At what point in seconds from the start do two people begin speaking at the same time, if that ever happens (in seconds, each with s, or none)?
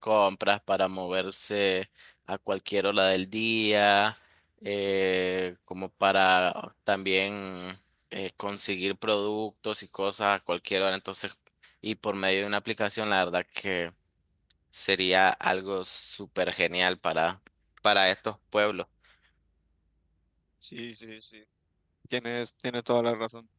none